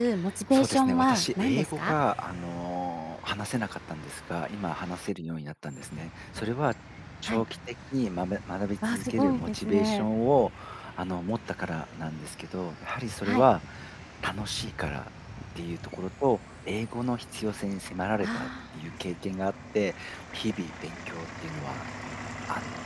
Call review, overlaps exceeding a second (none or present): present